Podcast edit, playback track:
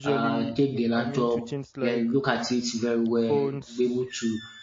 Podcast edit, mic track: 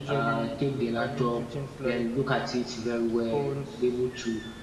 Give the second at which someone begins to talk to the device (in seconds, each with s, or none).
none